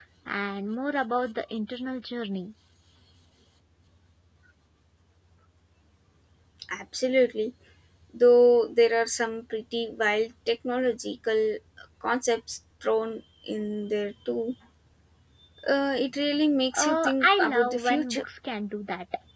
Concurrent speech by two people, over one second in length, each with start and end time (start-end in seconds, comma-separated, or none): 16.8-18.2